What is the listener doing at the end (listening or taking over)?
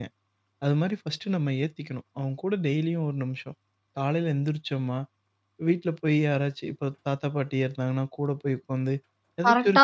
listening